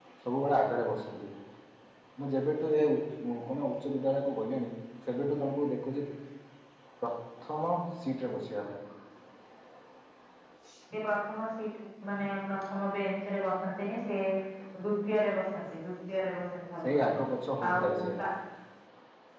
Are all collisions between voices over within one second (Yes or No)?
Yes